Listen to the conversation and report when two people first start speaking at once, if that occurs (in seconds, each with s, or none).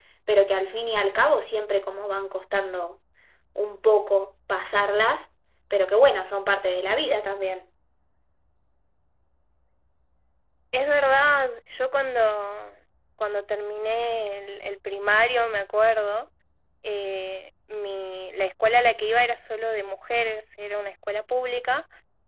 none